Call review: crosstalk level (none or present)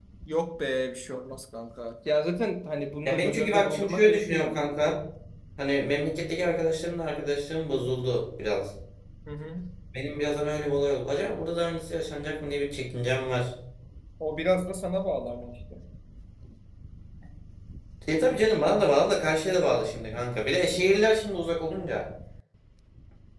present